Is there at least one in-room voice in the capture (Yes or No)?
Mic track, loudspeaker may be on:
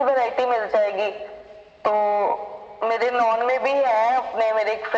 No